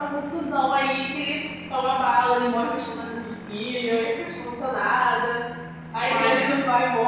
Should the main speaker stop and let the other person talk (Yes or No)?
No